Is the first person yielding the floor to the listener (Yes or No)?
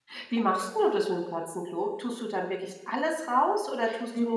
Yes